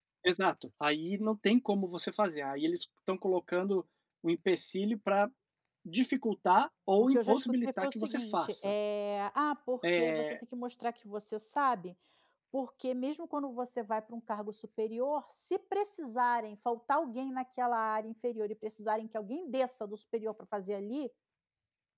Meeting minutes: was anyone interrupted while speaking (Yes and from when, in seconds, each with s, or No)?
Yes, from 7.1 s